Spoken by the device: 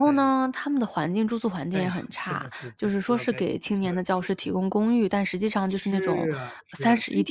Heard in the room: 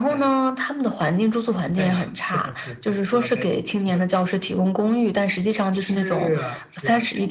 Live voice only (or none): none